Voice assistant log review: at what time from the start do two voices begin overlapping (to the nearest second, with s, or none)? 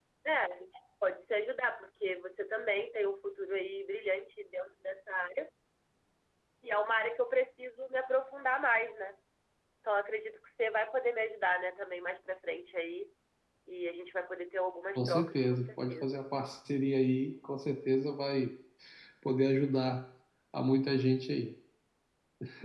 15 s